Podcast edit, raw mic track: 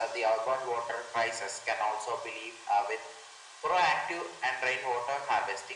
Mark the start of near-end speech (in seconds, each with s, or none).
none